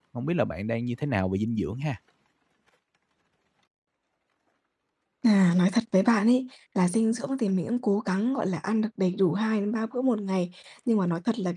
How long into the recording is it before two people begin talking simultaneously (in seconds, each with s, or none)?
none